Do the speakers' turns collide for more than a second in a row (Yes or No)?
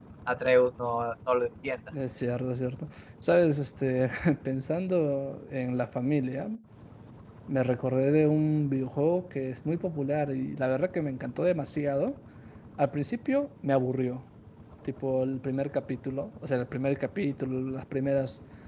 No